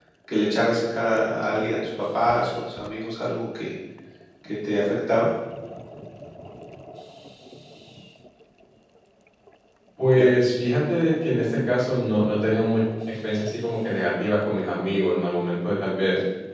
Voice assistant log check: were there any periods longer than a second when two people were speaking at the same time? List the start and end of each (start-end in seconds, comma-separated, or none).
none